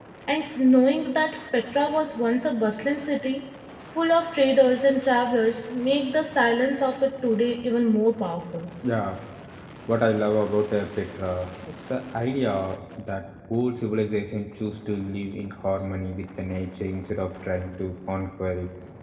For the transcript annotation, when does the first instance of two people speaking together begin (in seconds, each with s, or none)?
none